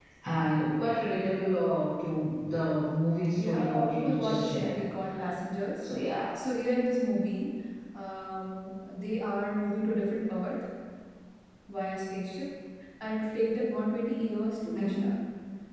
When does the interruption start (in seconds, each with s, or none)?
3.4 s